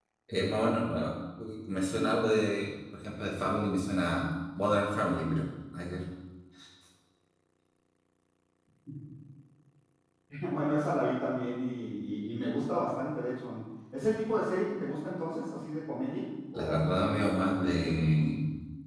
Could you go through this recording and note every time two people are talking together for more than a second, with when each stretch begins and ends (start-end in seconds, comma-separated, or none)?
16.5-18.3